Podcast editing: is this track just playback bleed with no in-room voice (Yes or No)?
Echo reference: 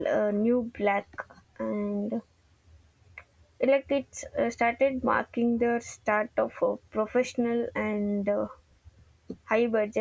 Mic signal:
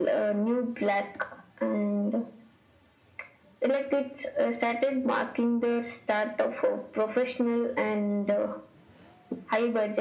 Yes